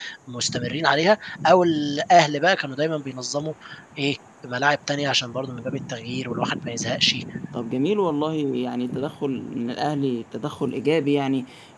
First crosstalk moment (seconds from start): none

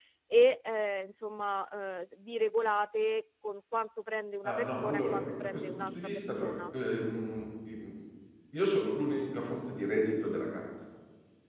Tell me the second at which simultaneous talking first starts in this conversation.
4 s

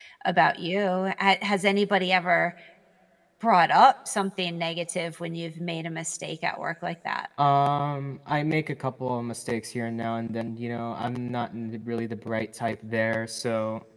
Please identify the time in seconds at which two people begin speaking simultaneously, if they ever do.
none

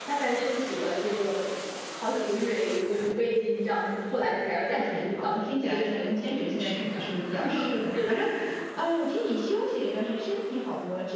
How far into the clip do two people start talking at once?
5 s

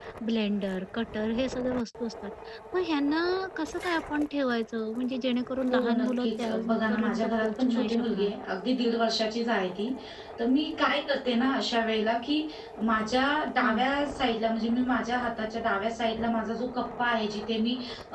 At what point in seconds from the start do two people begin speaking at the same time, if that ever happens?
6 s

